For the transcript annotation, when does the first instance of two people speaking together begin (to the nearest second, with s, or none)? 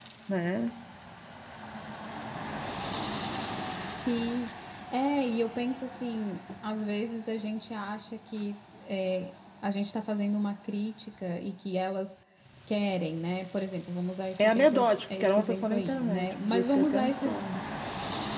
14 s